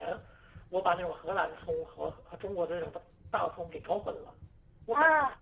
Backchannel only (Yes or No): Yes